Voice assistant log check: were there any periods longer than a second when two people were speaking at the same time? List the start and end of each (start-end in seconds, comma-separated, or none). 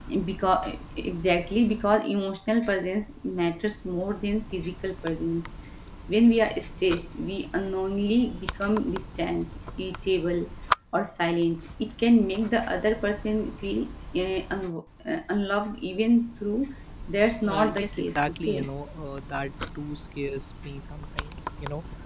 17.4-18.7